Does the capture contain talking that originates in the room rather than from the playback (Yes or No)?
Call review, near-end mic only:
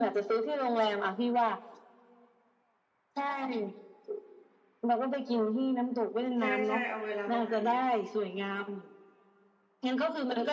Yes